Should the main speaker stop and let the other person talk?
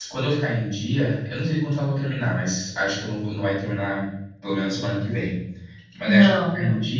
No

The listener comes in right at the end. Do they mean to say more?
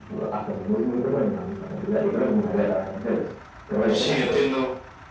Yes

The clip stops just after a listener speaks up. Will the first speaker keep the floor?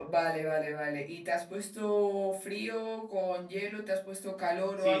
No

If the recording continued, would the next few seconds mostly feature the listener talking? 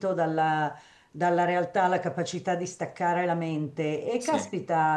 No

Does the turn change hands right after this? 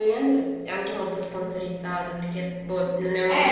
Yes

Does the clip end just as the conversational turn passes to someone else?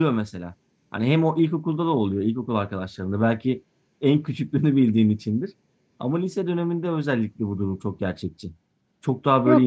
Yes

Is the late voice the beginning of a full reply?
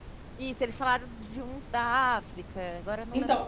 Yes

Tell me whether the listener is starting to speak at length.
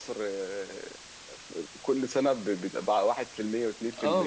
Yes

